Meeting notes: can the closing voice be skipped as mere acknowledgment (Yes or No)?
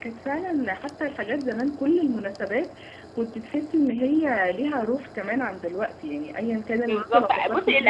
No